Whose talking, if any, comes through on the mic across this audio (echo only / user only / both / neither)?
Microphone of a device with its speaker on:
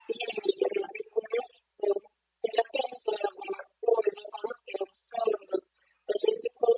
echo only